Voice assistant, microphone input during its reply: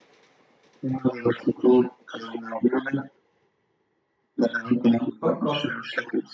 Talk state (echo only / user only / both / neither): both